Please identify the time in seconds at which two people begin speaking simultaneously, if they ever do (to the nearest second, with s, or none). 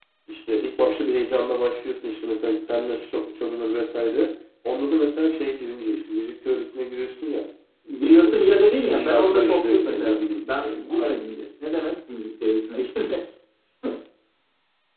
8 s